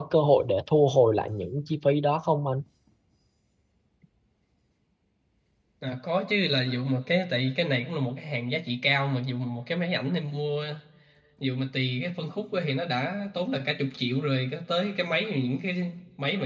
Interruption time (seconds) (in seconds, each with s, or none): none